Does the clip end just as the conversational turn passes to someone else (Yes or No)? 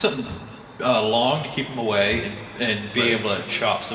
No